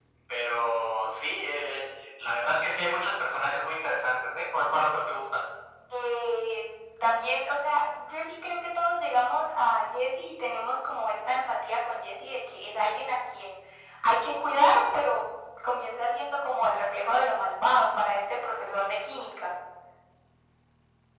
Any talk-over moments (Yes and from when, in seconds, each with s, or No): No